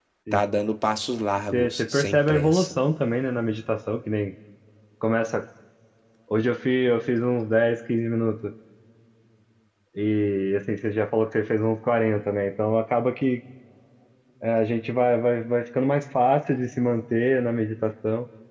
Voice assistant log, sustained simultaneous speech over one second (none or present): present